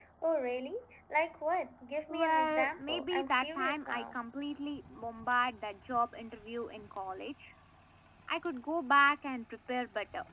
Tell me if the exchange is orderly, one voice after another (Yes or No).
No